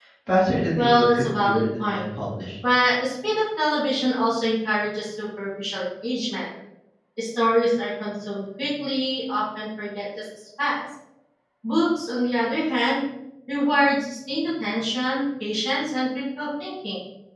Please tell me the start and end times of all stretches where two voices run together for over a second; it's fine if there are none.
0.8-2.0

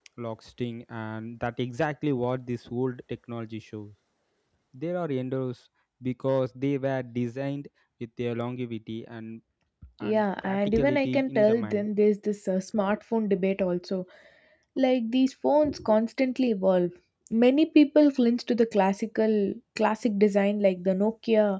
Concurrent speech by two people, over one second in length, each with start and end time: 10.0-11.9

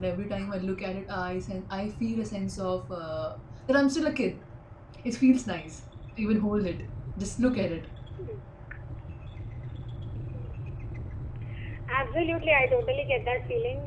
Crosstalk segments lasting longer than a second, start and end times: none

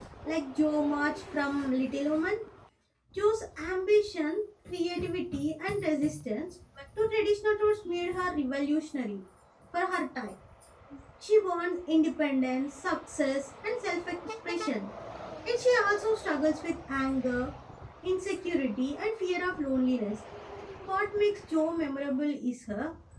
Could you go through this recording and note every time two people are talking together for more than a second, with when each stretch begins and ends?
none

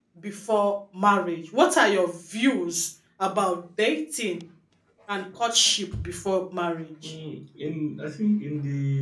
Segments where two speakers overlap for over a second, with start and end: none

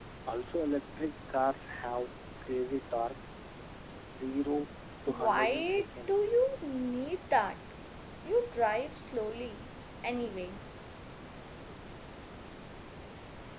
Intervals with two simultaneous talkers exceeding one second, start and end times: 5.1-6.4

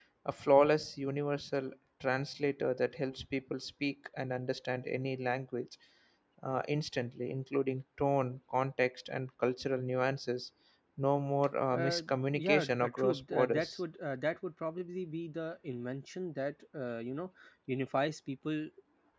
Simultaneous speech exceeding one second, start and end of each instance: 11.7-13.8

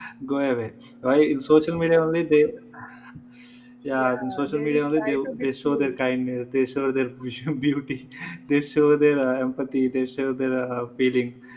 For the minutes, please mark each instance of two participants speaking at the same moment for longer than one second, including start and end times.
3.9-5.9

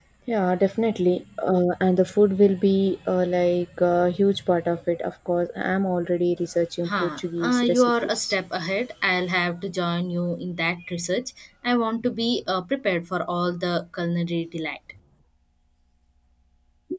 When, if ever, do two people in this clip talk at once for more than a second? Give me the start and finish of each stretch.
6.8-8.3

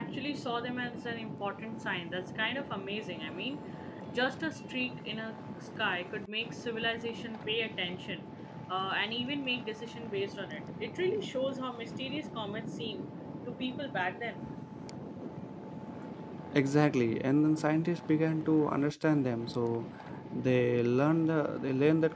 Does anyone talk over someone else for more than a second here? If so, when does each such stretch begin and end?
none

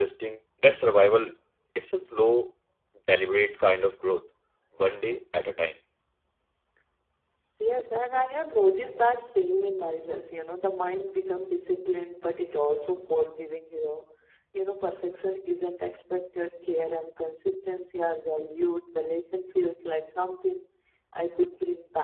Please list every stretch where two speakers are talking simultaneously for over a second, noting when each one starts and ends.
none

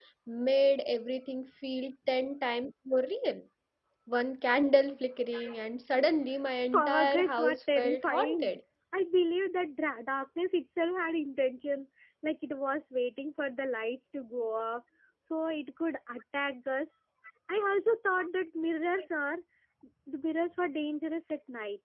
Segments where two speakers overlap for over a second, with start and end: 6.7-8.5

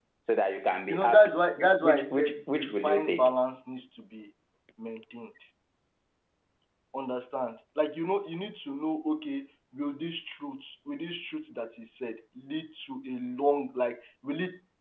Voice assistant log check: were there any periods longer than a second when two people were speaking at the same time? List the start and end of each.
1.8-3.4

